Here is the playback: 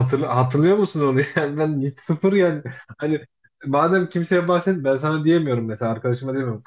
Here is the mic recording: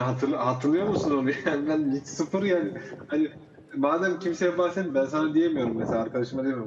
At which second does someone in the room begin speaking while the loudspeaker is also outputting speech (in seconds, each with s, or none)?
none